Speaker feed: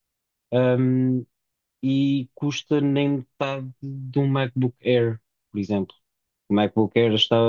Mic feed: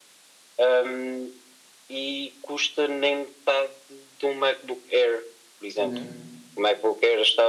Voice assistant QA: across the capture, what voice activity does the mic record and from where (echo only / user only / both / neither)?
both